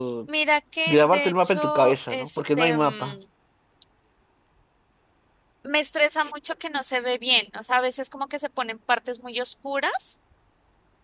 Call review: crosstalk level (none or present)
present